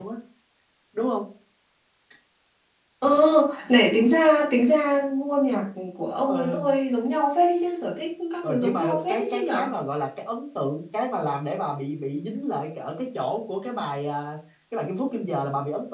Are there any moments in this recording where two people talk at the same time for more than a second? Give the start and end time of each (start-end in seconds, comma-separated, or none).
8.4-9.7